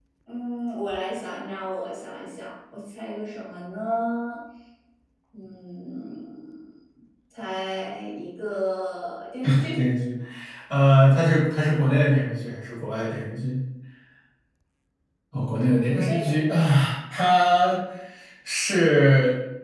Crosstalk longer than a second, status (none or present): none